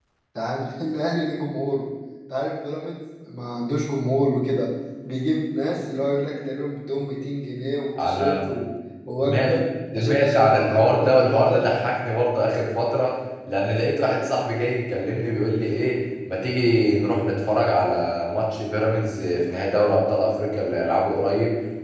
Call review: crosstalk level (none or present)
present